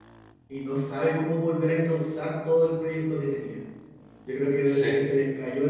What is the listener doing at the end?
listening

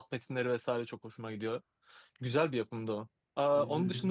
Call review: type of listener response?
listening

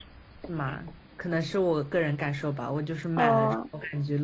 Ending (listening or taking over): listening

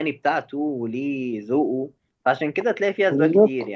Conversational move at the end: listening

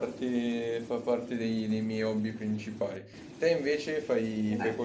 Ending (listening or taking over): taking over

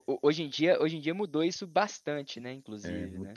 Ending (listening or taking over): taking over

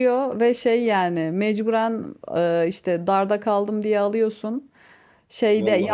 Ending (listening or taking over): listening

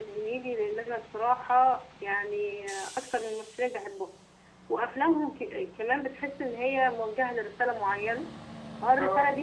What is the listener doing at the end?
listening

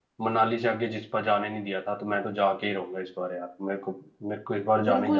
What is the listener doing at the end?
taking over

